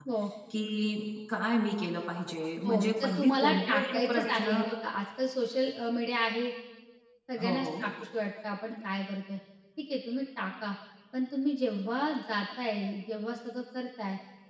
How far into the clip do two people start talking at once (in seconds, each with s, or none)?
2.7 s